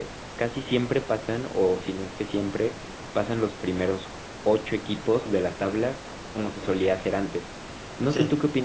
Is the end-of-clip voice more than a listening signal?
No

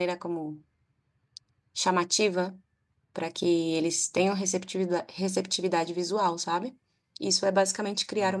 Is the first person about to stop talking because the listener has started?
Yes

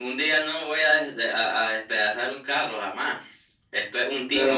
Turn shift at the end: No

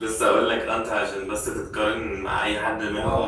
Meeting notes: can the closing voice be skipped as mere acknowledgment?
No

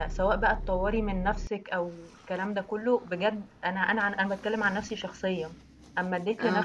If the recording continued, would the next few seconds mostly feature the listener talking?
No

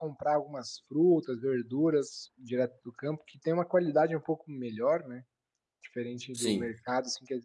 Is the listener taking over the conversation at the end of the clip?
No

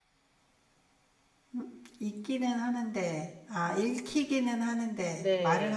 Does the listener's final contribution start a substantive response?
Yes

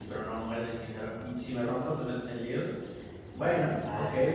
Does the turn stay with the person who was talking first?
No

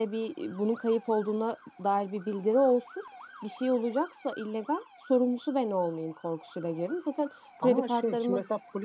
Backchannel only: No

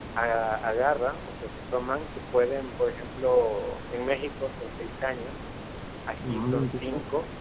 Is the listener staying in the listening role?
Yes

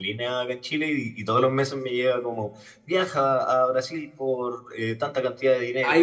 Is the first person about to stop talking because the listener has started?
Yes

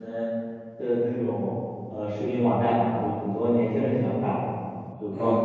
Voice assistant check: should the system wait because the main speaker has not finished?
No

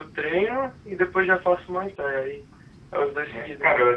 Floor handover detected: Yes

